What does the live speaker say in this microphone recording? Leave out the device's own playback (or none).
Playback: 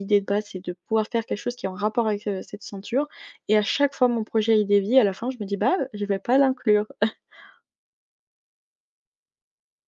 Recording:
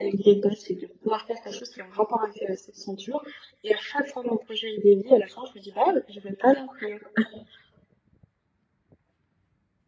none